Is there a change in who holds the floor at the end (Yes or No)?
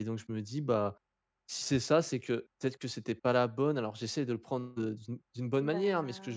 No